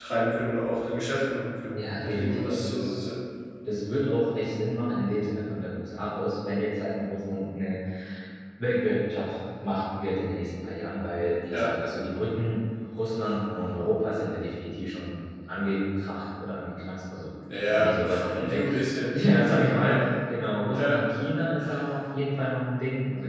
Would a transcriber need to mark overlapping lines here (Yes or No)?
Yes